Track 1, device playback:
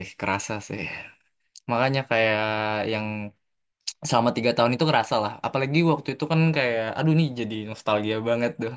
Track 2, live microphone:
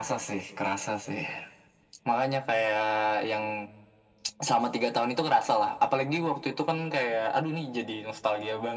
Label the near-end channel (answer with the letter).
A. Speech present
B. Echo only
B